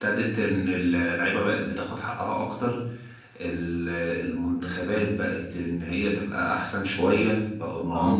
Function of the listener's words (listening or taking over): taking over